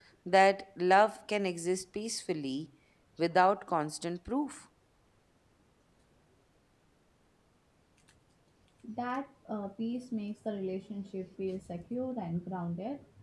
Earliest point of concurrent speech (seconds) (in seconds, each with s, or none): none